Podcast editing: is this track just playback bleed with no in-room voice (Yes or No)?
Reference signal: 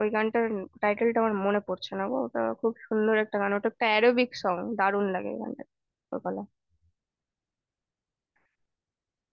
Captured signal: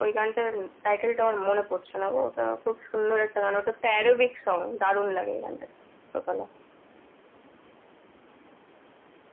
Yes